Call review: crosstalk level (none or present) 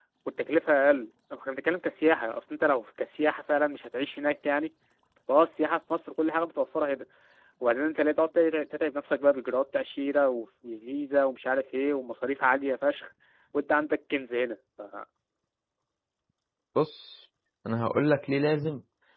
none